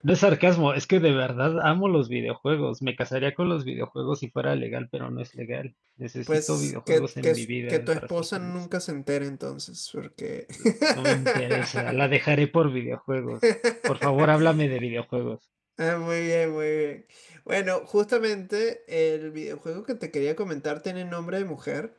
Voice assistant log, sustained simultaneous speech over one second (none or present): present